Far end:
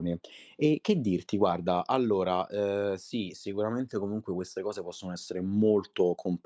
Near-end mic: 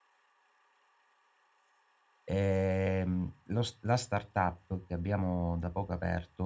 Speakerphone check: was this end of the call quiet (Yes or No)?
No